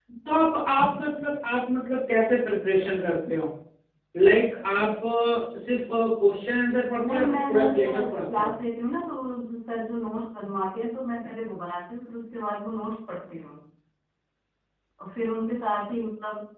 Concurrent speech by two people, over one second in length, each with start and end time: 7.0-8.5

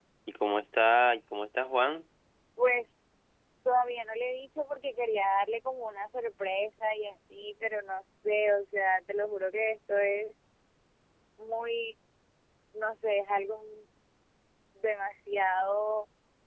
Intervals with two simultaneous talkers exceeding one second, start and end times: none

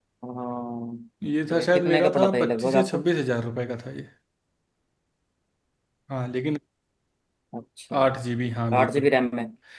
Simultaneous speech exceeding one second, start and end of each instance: 1.5-3.0

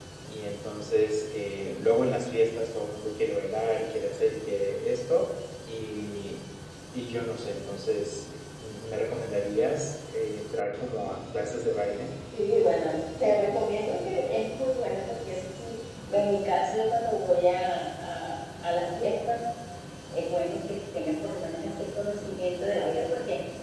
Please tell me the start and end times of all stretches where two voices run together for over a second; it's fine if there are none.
none

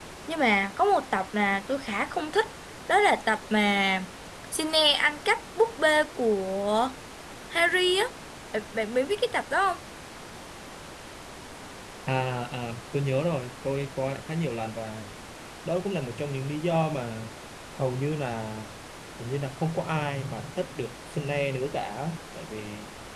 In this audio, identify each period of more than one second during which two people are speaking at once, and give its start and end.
none

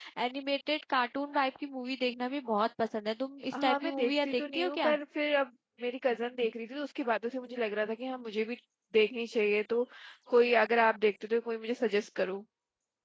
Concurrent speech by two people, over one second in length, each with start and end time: 3.6-5.0

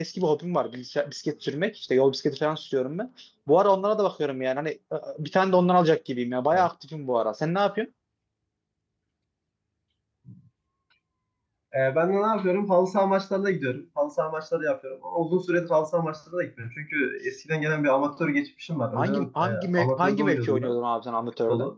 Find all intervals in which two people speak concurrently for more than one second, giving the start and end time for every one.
19.0-20.7

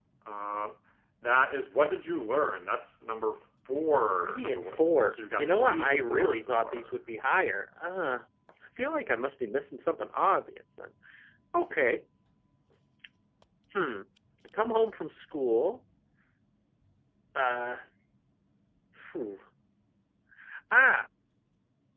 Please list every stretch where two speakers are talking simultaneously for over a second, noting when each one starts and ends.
4.2-7.0

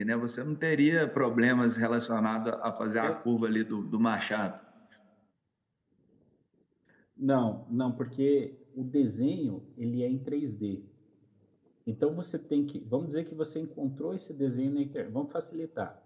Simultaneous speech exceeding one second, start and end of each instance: none

